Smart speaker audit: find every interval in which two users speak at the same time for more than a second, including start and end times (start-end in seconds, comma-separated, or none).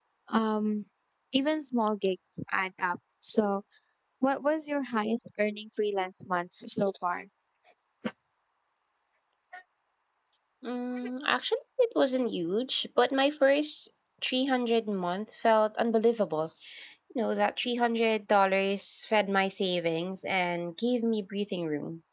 none